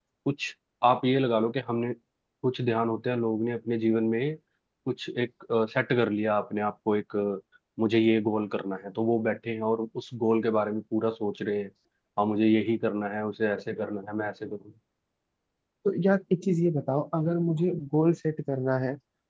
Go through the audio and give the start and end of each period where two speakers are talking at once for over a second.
none

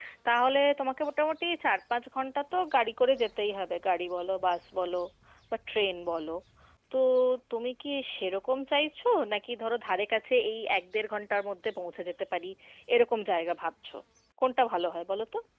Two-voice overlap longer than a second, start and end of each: none

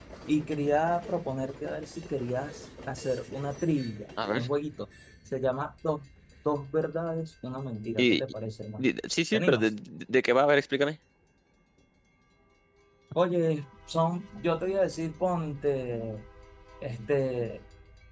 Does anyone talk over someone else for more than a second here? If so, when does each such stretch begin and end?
none

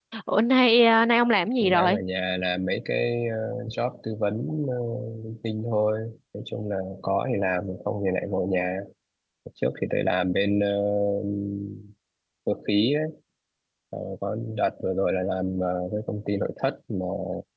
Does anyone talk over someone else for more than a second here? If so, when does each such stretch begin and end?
none

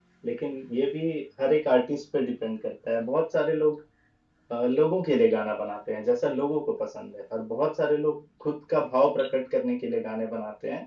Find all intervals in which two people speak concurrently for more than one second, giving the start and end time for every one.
none

